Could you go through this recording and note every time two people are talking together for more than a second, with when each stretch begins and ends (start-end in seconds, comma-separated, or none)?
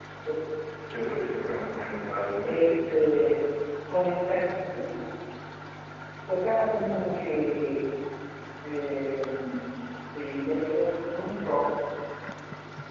none